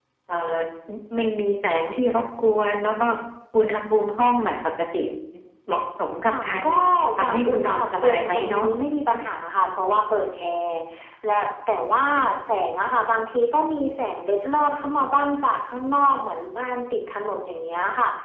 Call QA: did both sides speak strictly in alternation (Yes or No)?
No